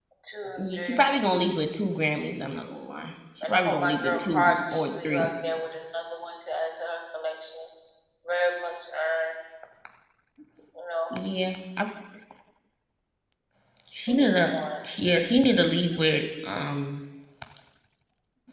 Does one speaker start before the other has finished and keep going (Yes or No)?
Yes